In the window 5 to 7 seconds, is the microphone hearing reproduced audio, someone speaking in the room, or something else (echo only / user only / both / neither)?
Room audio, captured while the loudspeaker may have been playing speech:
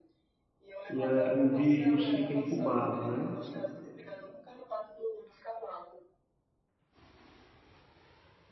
echo only